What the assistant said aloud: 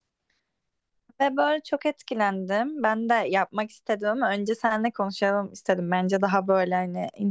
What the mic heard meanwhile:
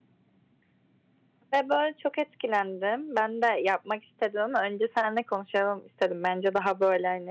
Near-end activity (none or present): none